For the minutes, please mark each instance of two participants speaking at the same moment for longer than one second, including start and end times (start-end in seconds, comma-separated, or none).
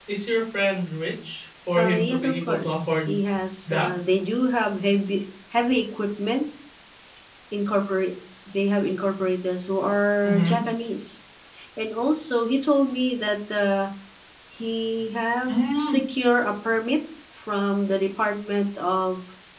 1.8-3.1